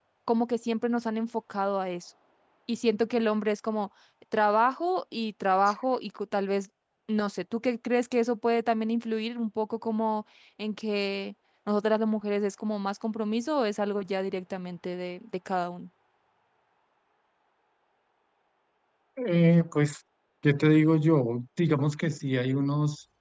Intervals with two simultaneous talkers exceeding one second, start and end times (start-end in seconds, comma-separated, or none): none